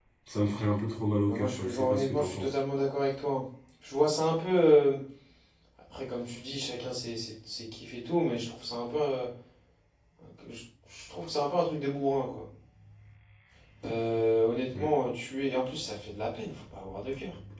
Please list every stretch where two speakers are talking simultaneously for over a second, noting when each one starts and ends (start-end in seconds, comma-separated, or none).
1.3-2.6